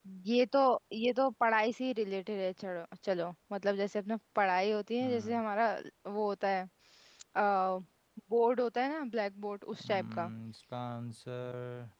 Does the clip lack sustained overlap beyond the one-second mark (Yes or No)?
Yes